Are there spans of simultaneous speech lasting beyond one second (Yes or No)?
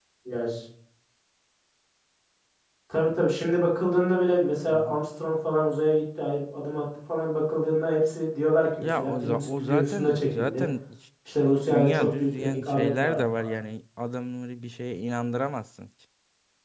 Yes